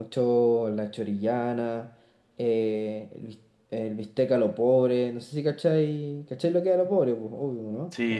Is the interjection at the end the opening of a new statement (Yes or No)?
Yes